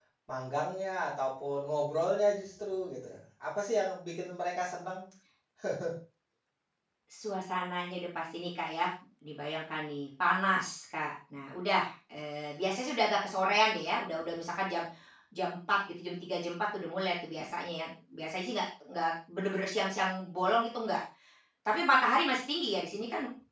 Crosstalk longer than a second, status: none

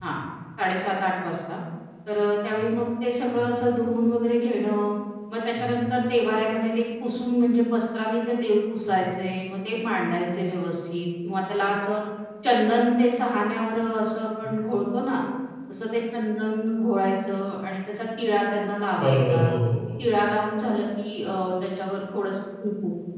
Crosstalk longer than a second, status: none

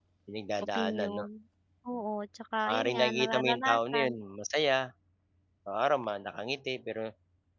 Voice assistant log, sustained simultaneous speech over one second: present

